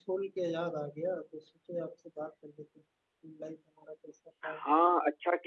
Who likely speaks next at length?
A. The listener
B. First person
A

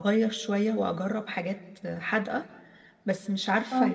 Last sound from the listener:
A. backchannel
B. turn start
A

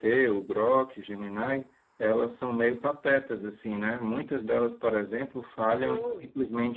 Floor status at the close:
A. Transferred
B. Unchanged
B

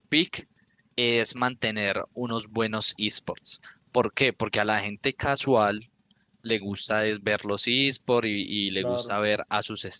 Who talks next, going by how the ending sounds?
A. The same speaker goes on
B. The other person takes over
A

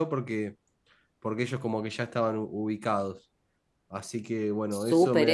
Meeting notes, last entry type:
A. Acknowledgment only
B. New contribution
B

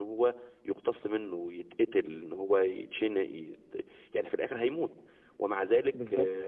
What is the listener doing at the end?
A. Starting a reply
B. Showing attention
B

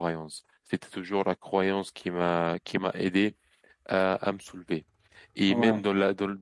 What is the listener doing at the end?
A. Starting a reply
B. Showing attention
B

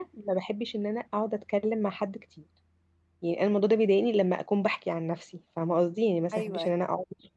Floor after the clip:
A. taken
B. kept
B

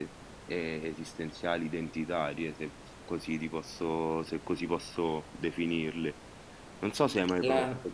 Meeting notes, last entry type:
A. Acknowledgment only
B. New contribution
A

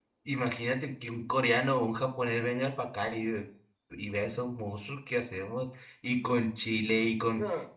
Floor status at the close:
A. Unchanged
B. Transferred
A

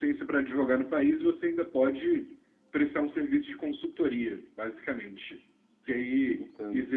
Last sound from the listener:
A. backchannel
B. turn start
A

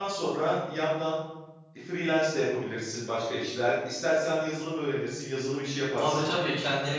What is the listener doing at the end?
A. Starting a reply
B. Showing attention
A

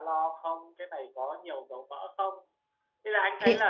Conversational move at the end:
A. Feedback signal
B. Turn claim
A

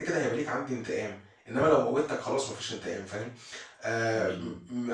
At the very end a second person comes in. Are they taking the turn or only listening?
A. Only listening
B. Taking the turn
A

